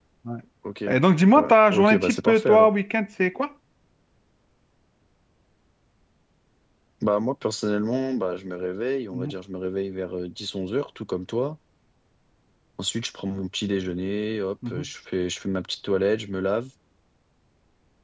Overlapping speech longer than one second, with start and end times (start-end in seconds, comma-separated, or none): 1.3-2.7